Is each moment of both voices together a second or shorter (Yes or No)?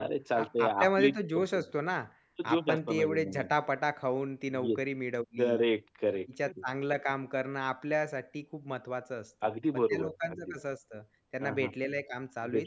No